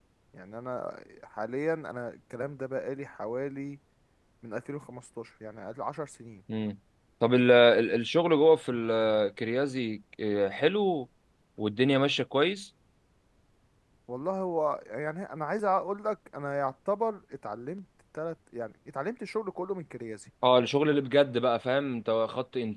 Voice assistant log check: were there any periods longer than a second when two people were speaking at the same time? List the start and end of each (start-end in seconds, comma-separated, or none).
none